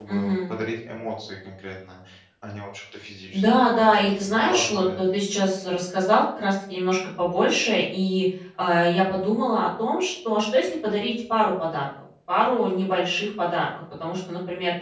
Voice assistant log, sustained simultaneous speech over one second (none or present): present